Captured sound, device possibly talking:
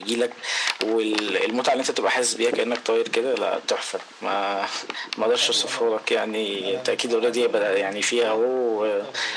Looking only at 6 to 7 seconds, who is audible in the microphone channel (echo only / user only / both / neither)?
both